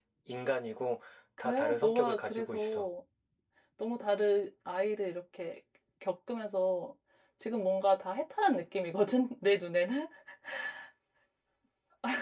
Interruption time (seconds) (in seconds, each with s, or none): 1.4 s